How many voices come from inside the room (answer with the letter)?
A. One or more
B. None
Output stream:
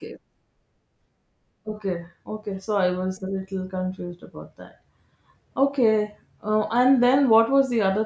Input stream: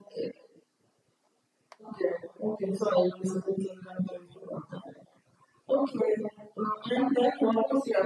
B